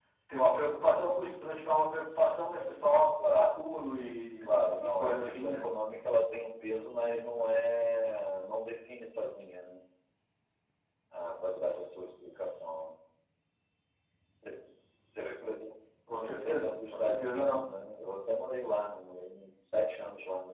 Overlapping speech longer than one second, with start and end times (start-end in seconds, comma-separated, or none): 4.4-5.6, 16.2-17.6